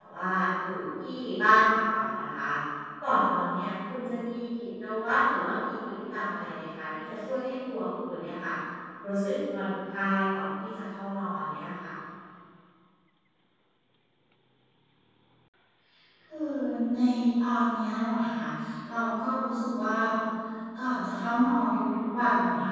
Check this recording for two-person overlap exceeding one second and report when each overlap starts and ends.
none

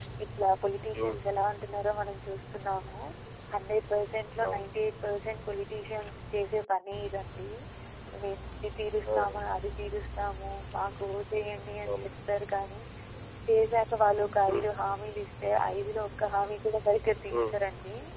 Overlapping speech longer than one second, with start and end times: none

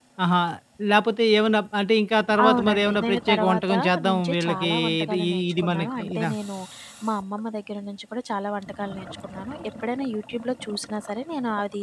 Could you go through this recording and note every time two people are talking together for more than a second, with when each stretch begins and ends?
2.4-6.3

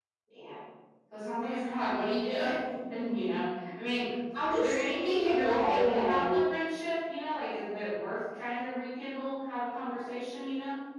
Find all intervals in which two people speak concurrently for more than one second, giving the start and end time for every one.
4.5-6.4

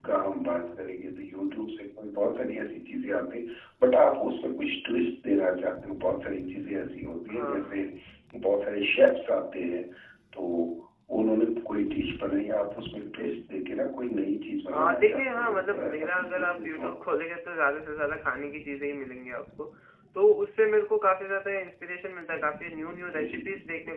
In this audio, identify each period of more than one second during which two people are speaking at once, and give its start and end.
14.7-16.9

